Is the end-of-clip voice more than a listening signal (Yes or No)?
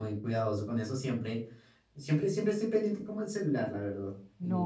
Yes